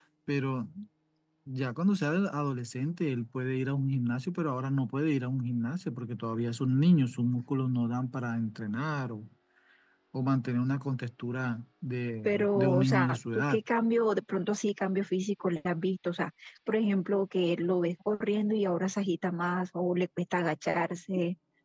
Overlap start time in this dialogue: 12.2 s

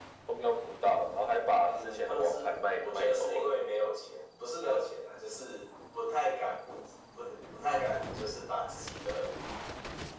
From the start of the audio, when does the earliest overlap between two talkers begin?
1.6 s

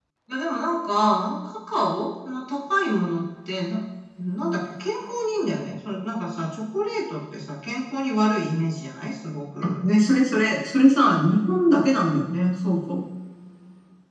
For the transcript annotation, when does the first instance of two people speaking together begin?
none

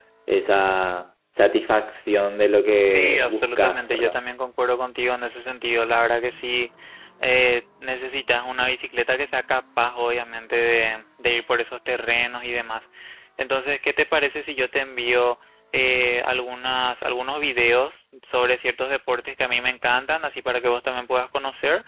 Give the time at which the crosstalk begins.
2.8 s

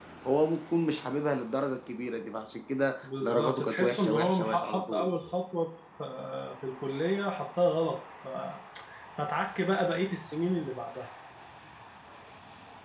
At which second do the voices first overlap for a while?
3.0 s

